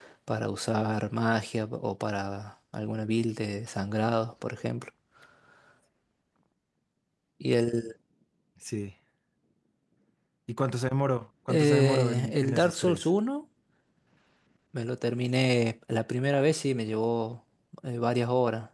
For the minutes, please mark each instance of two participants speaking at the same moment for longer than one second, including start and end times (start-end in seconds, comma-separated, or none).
11.5-13.1